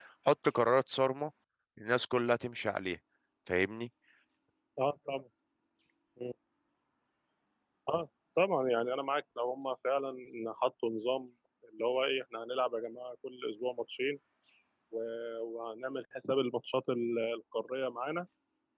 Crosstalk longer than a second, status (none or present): none